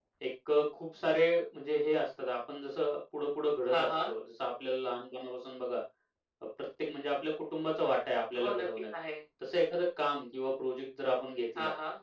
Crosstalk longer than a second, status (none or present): none